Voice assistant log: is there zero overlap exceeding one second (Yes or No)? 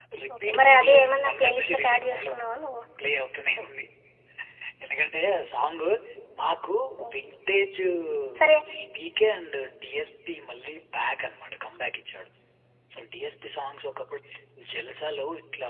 No